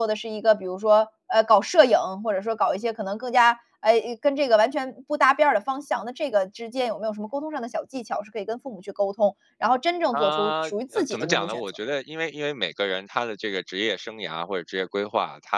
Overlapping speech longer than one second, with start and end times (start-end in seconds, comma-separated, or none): 10.1-11.6